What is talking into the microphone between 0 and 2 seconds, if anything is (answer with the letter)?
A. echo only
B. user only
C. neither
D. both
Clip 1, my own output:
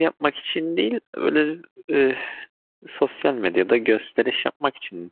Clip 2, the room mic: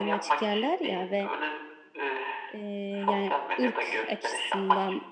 D